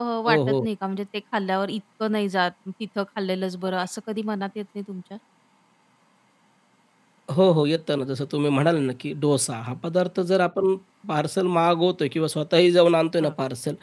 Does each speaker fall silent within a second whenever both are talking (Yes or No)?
Yes